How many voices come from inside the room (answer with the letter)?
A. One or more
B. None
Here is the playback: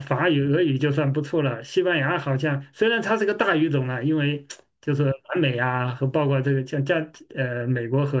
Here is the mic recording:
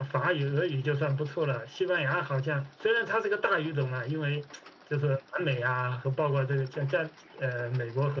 B